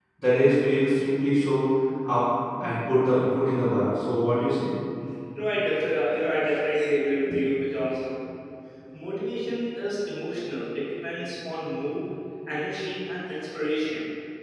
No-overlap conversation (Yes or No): Yes